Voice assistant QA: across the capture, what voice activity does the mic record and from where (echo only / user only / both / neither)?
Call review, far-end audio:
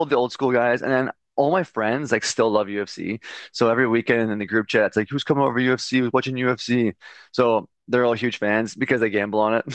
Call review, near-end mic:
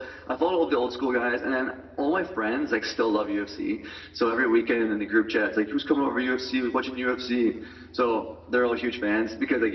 echo only